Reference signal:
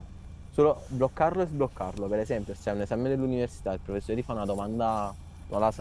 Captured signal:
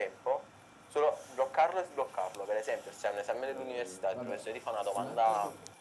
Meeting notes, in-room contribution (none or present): present